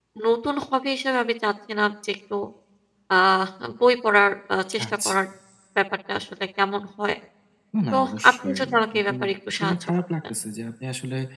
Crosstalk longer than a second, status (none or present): present